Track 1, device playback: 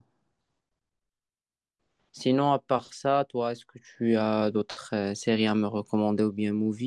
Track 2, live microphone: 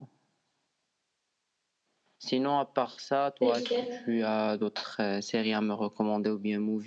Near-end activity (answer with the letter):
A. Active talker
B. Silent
A